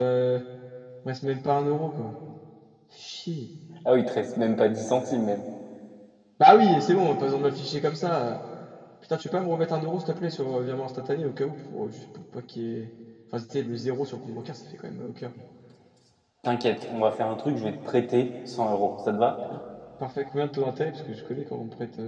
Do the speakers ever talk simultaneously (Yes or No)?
No